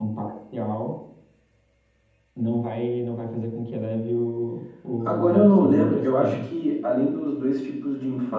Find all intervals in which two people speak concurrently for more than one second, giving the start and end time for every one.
5.0-6.5

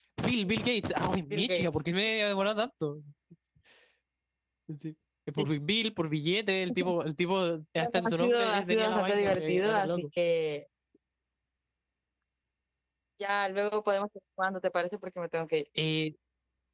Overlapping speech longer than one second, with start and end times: 7.8-9.9

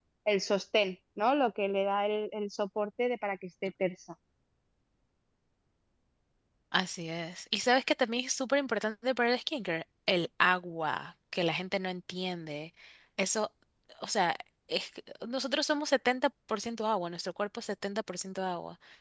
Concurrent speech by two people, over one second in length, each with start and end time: none

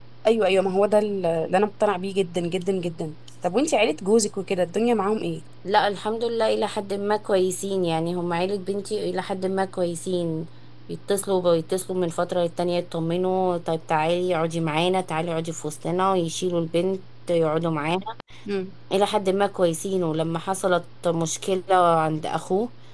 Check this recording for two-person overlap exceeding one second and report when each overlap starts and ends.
none

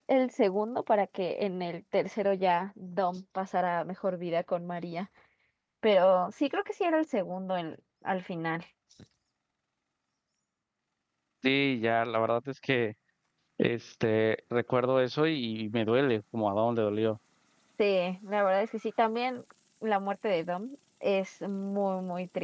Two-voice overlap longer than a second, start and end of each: none

